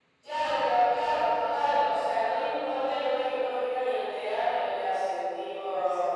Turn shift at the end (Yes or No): No